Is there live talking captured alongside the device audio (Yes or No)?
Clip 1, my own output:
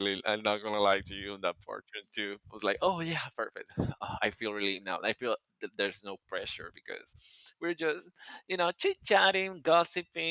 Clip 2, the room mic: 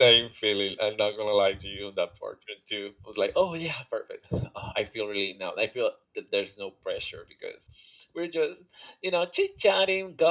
No